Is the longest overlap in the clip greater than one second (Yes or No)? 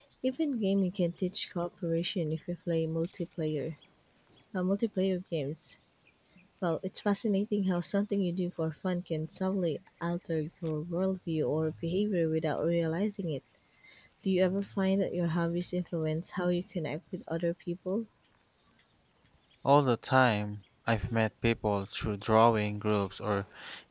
No